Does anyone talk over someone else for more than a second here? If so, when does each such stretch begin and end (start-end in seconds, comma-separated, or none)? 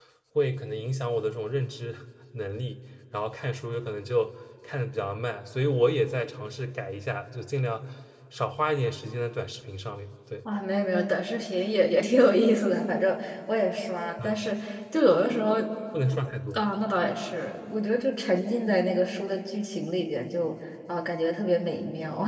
none